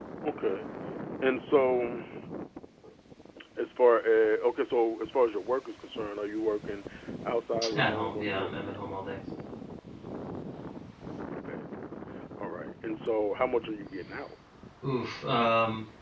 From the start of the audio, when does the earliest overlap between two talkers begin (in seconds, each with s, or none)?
7.7 s